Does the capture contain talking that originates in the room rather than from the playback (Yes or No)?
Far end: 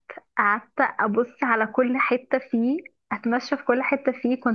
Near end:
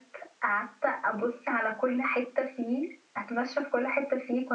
No